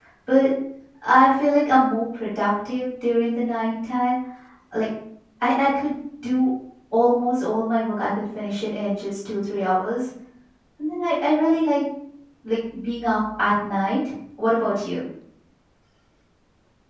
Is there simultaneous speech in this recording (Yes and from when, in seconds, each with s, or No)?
No